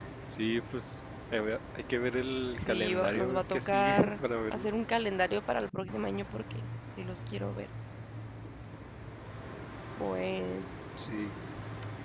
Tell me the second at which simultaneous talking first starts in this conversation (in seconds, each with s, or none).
2.6 s